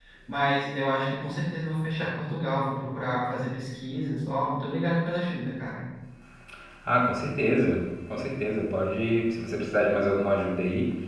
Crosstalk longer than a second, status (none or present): none